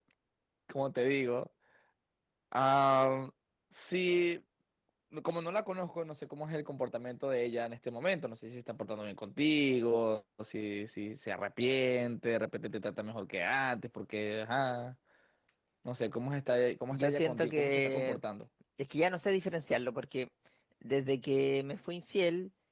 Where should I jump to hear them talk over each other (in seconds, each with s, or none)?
16.9 s